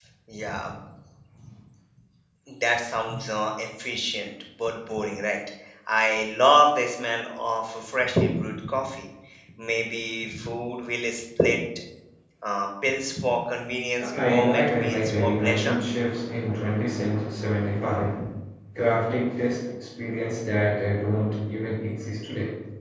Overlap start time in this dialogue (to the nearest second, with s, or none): 14 s